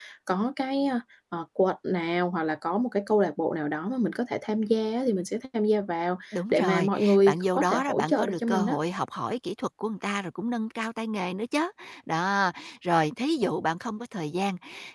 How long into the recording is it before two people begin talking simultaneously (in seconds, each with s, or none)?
6.3 s